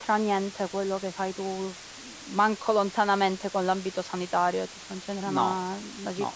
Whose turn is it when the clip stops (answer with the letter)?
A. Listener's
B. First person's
A